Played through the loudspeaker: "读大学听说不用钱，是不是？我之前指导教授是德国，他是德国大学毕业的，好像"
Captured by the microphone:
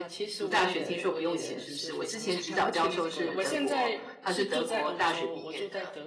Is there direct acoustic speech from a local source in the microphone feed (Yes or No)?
Yes